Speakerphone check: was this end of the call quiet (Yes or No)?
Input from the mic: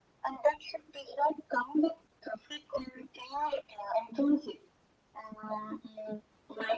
Yes